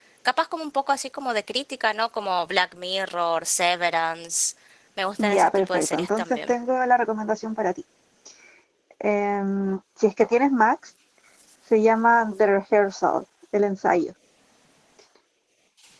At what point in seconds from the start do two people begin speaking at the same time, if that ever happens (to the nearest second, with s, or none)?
5 s